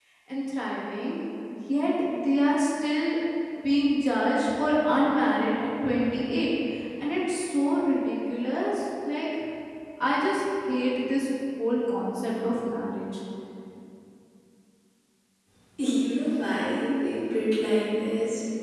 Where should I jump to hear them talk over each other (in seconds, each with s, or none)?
none